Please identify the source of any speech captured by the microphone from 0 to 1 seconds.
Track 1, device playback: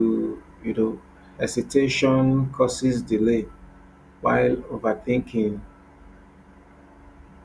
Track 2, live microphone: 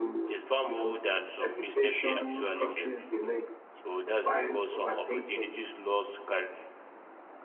both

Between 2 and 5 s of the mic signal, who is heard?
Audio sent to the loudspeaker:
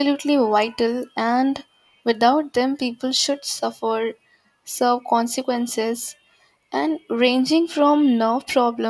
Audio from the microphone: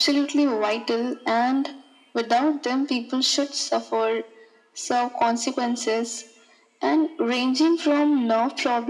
echo only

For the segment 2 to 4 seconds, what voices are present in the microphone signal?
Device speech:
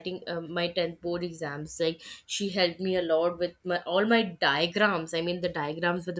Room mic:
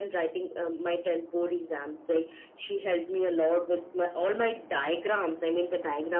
echo only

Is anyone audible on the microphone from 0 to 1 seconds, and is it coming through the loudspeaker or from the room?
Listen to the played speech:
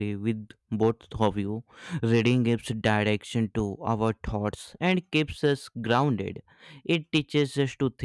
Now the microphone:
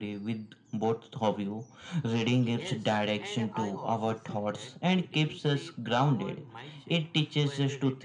echo only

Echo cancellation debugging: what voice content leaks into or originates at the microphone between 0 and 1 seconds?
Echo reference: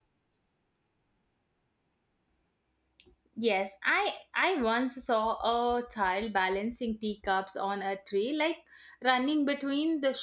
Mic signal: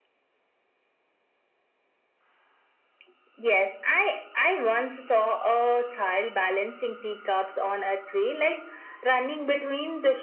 neither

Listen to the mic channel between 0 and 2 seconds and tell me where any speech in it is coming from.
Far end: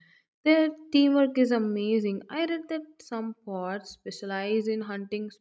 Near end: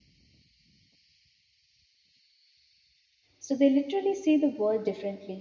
neither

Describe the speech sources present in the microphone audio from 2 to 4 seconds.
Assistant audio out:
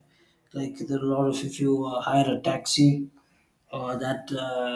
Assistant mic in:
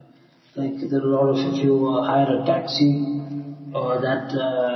echo only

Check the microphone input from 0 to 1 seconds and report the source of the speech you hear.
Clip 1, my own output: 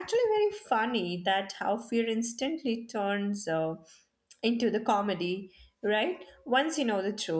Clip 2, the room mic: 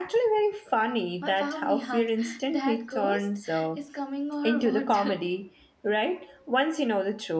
echo only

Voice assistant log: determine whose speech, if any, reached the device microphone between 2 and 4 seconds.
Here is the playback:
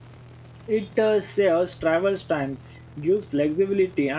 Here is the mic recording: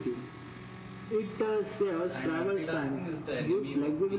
both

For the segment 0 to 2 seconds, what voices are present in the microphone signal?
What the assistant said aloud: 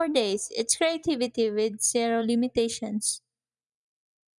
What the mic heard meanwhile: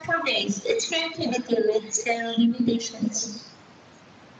echo only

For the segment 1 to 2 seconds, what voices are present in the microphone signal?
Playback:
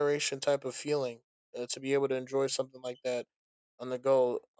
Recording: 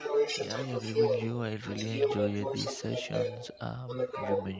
both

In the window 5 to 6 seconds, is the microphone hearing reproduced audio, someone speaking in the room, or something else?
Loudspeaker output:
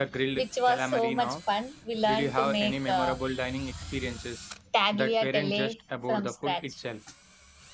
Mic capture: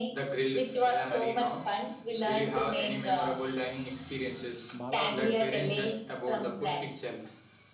both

